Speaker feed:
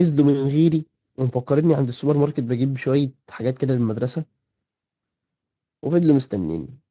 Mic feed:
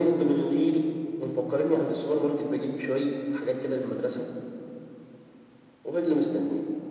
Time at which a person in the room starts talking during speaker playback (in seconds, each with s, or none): none